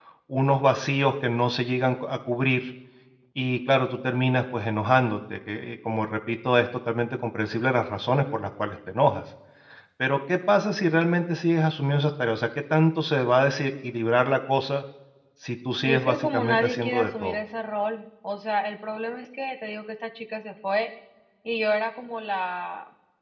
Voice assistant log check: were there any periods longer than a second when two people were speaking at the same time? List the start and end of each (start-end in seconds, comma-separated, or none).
15.8-17.4